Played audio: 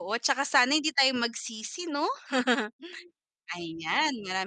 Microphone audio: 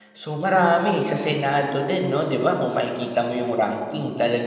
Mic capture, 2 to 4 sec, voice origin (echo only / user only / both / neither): user only